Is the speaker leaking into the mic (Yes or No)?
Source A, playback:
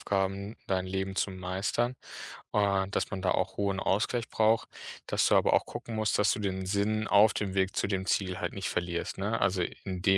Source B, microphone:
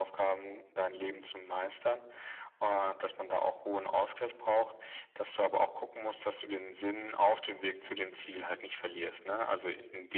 Yes